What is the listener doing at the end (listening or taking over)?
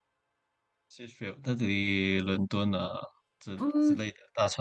taking over